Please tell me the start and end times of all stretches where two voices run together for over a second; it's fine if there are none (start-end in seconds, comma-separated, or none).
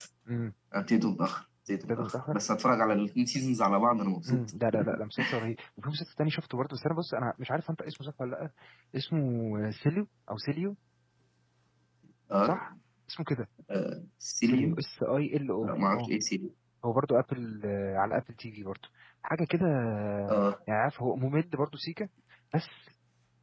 none